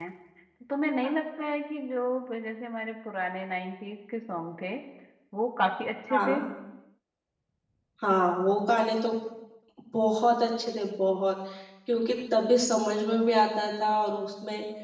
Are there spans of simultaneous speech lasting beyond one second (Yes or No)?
No